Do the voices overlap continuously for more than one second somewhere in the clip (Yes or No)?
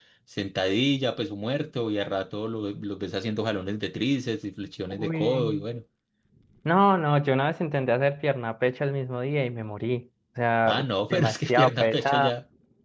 Yes